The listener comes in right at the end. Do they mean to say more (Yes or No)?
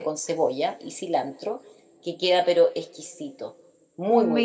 Yes